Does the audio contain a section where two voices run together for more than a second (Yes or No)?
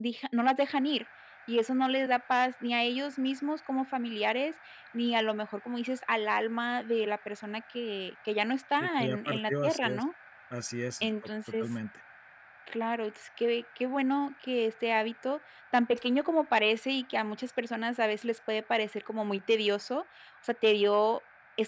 Yes